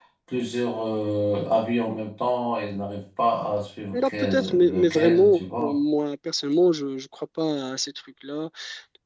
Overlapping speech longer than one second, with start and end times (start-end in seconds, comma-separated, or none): 3.9-5.8